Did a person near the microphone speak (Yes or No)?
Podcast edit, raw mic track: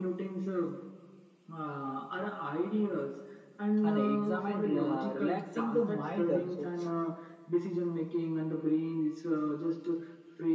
Yes